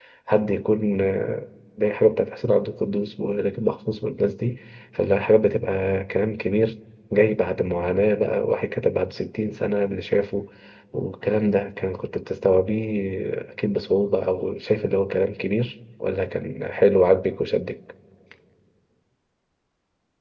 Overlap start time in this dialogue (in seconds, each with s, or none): none